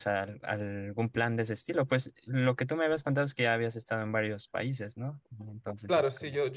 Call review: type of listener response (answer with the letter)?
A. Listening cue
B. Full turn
B